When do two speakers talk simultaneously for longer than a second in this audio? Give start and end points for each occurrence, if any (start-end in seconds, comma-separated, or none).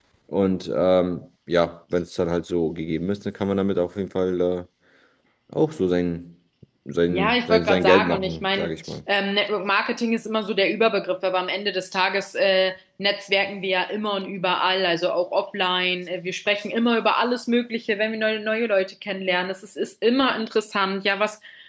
7.1-9.0